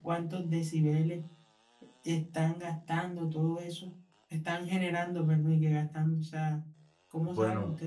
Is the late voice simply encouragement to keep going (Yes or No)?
No